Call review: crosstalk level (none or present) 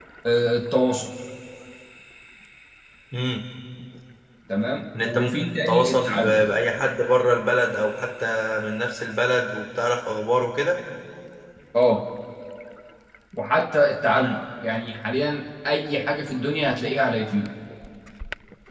present